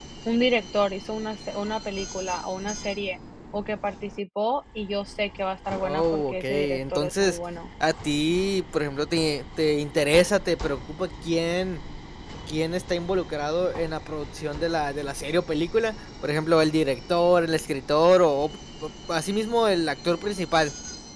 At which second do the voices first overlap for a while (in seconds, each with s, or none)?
5.8 s